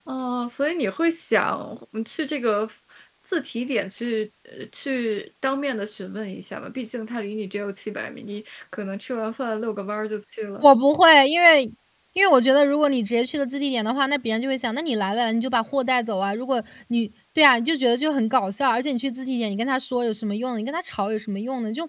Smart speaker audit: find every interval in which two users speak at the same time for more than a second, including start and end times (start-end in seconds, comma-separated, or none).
none